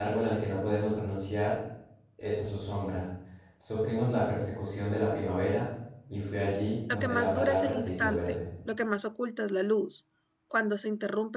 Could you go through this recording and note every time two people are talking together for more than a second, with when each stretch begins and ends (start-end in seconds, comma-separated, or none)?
6.9-8.2